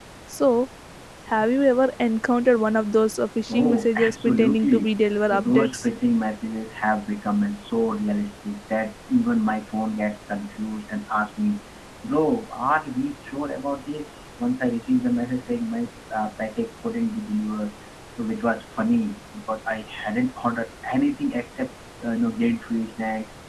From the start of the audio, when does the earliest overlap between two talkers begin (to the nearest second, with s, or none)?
3 s